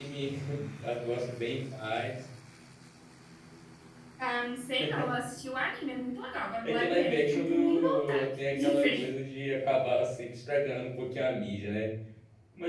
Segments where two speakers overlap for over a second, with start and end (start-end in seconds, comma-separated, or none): 6.6-9.0